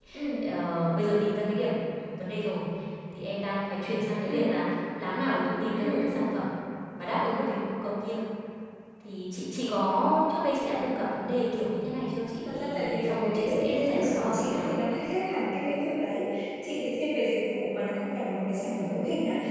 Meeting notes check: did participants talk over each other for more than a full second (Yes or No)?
Yes